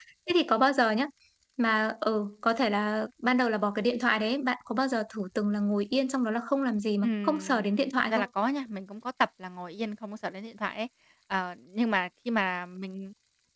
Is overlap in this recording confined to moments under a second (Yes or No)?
No